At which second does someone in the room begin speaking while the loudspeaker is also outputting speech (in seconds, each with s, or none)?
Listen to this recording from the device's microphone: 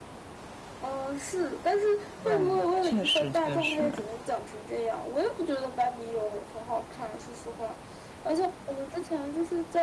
2.2 s